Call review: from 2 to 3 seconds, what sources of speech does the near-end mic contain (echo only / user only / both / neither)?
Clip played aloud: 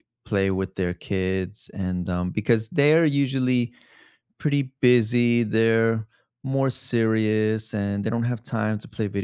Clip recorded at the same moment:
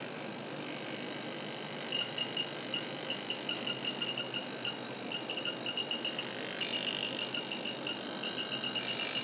neither